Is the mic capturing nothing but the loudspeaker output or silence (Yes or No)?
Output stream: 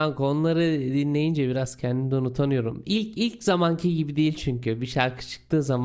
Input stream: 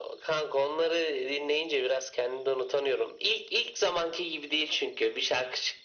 Yes